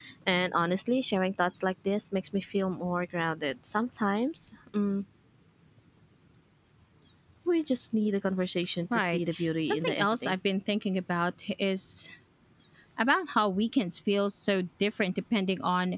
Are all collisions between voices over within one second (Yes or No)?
No